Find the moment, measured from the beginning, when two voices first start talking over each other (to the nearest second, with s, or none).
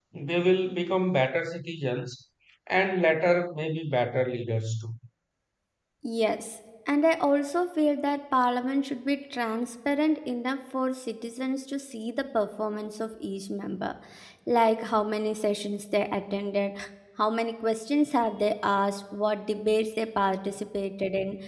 none